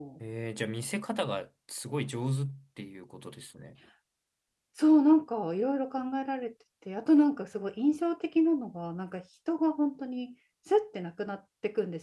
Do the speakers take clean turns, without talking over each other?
Yes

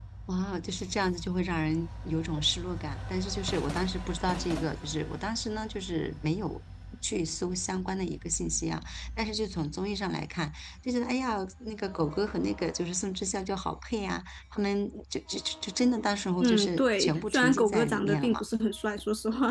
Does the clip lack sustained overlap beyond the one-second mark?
No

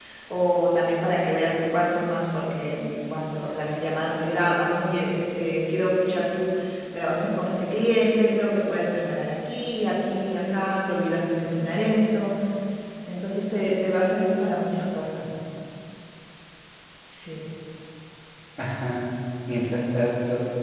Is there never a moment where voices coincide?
Yes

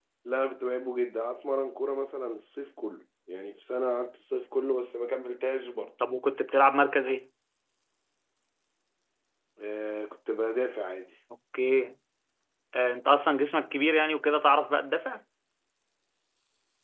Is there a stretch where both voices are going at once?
No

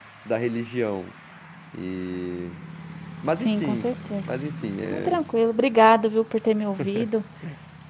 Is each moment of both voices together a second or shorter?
Yes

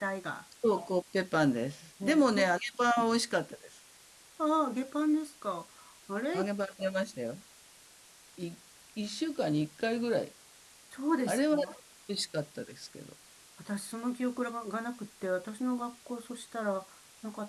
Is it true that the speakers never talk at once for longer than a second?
Yes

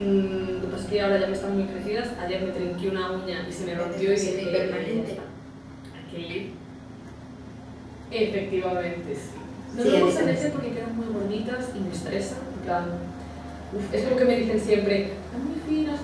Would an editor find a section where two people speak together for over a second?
Yes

